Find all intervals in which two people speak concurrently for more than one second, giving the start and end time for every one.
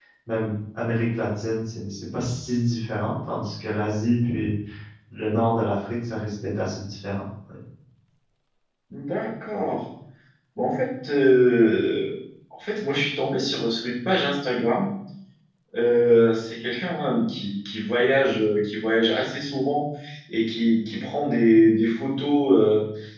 none

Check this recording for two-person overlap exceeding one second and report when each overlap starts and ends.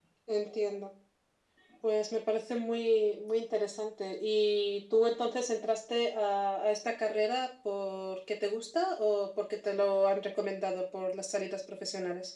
none

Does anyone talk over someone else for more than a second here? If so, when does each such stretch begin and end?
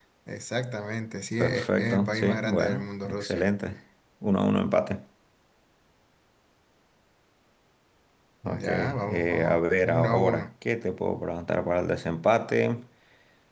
1.4-3.5, 8.4-10.5

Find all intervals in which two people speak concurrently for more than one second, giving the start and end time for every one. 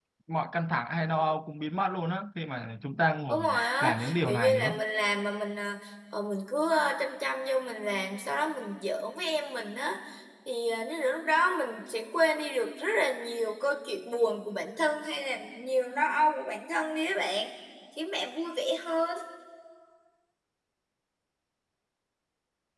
3.3-4.8

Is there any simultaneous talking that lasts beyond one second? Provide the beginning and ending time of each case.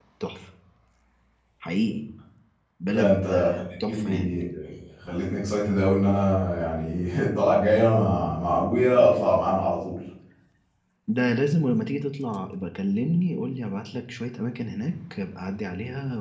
2.9-4.4

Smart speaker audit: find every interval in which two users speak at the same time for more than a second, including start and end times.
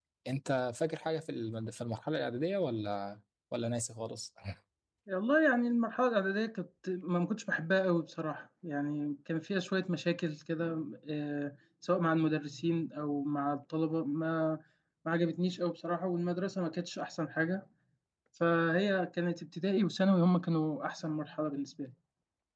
none

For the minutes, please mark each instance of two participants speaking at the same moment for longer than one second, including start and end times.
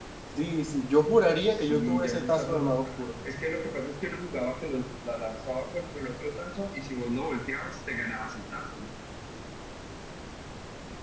1.5-3.1

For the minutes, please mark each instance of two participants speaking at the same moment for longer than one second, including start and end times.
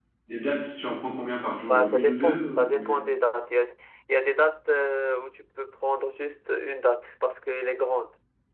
1.6-3.0

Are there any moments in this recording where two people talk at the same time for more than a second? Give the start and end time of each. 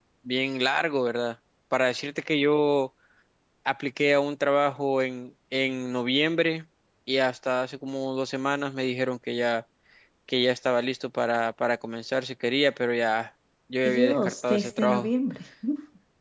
13.8-15.1

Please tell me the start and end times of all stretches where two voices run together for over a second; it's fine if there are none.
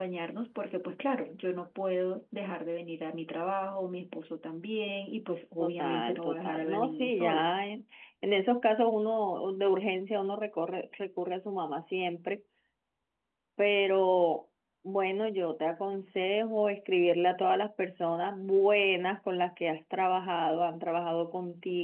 5.6-7.4

